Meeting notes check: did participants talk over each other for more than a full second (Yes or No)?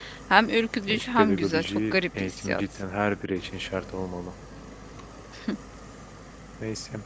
Yes